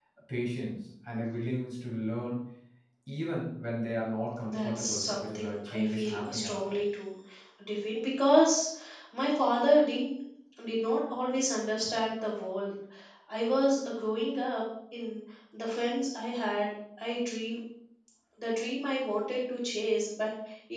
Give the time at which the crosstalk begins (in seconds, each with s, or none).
4.4 s